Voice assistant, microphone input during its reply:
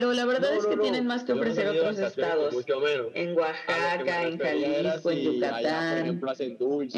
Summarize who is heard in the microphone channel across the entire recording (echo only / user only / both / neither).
echo only